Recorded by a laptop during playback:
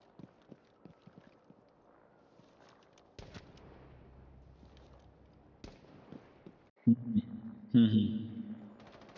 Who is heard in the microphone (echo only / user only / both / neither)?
user only